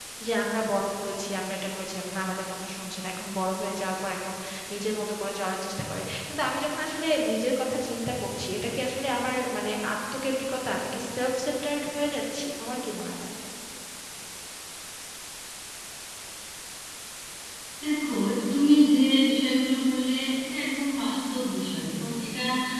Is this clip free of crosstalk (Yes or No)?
Yes